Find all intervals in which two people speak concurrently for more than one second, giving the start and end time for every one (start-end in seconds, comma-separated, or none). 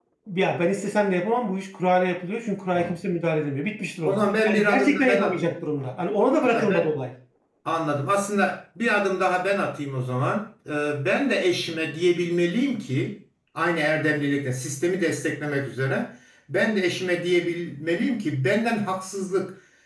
4.0-5.5